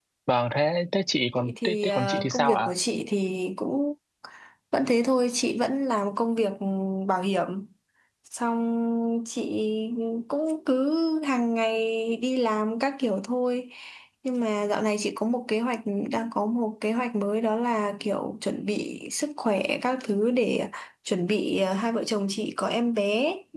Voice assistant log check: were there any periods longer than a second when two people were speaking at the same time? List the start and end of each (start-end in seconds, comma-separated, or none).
1.4-2.7